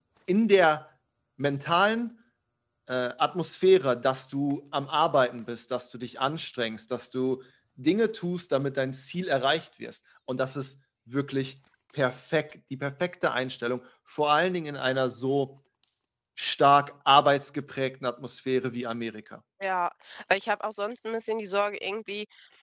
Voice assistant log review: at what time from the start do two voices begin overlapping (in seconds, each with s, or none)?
none